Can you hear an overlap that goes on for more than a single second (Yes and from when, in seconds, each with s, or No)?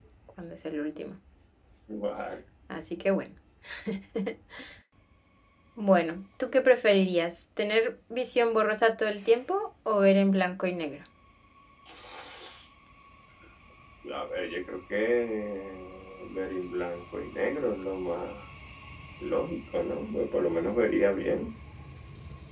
No